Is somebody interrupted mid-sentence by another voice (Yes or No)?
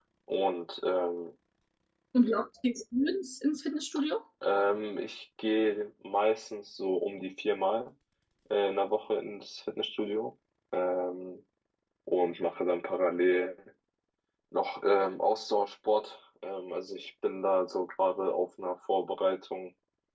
No